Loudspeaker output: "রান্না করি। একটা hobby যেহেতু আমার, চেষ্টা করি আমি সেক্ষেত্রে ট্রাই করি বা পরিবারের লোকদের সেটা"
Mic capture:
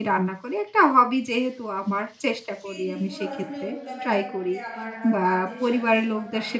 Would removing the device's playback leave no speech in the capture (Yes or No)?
No